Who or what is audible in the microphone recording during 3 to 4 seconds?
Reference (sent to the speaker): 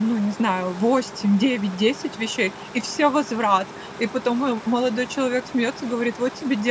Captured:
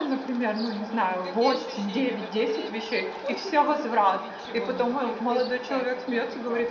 both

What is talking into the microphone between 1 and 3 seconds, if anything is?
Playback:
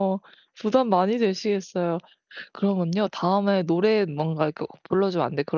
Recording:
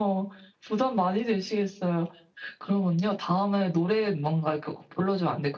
echo only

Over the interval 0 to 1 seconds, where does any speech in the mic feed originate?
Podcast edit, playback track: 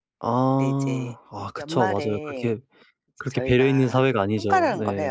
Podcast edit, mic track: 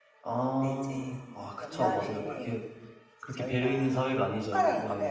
echo only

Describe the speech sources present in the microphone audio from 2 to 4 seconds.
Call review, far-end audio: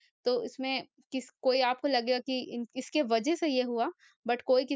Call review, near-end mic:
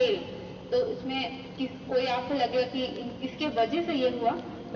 echo only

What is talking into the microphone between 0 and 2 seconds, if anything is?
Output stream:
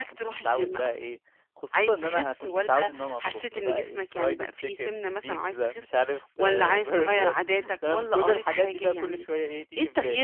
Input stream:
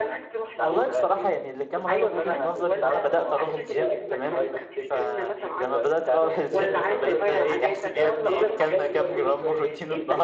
both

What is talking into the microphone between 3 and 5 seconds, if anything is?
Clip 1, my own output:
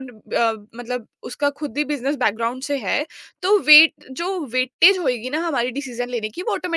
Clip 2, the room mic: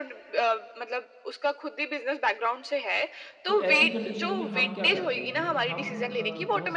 both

